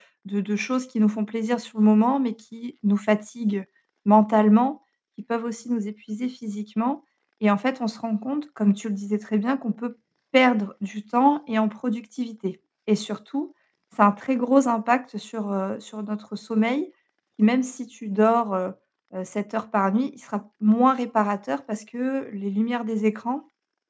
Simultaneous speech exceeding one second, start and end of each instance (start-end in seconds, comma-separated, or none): none